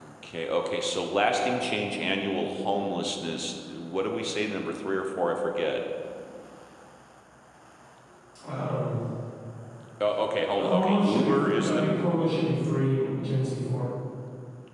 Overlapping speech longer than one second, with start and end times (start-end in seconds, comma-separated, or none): 10.6-11.8